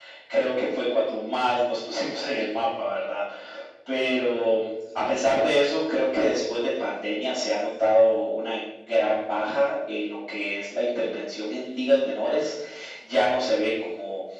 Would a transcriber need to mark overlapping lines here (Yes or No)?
No